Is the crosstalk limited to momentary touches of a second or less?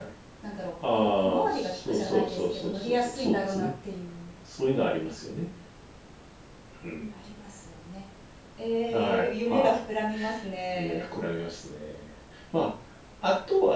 No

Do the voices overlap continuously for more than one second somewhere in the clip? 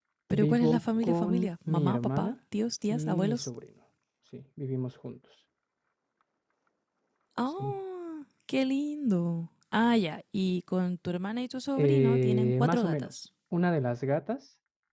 Yes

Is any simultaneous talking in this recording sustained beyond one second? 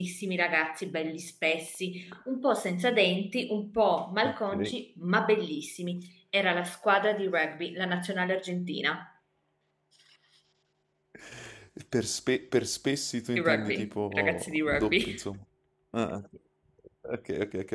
Yes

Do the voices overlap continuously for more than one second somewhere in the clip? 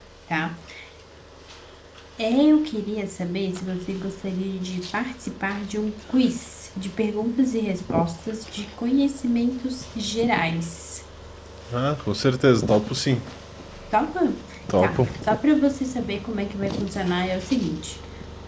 No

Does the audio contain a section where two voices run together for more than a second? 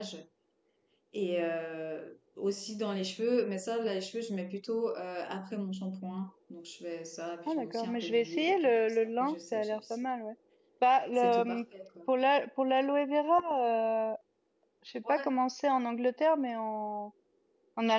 Yes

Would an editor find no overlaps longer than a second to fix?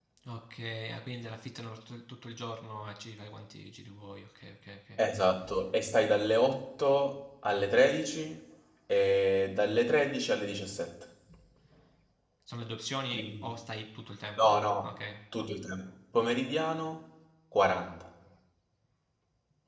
Yes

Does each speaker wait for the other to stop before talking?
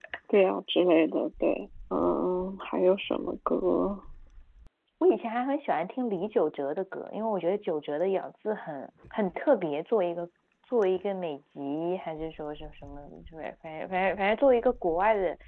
Yes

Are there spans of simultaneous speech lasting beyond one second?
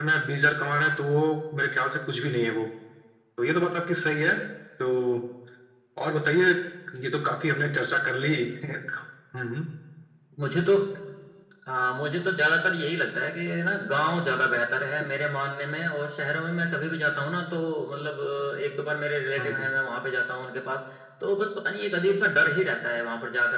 No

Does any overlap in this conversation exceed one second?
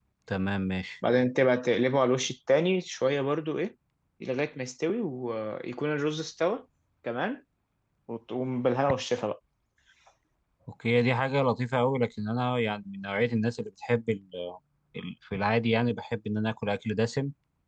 No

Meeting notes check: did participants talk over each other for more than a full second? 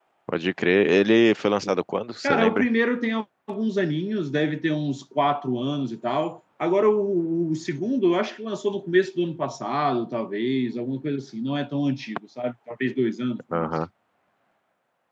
No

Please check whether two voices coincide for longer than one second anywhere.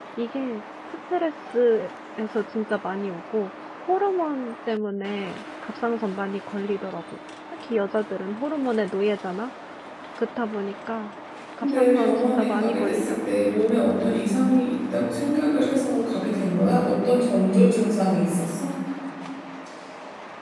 Yes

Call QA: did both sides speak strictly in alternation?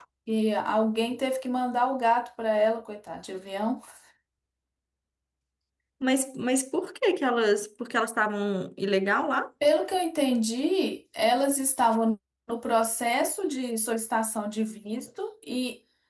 Yes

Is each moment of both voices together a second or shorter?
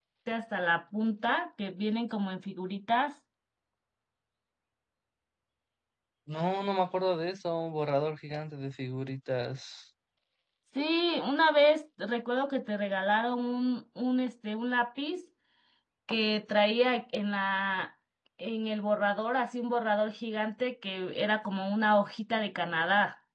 Yes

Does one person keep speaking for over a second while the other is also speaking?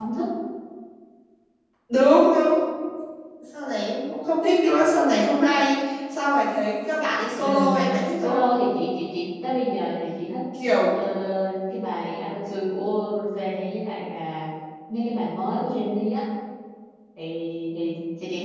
No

